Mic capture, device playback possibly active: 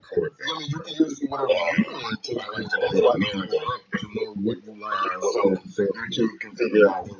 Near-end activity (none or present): none